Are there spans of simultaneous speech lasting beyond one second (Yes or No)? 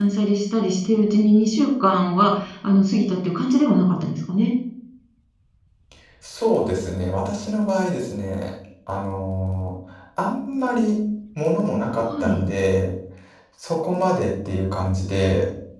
No